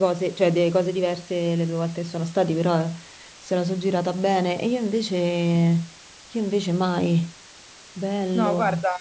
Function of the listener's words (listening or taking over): taking over